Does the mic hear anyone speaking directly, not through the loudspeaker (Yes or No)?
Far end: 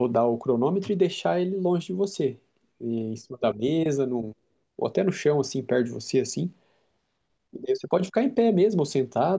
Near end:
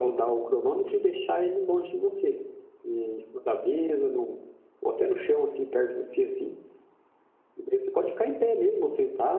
No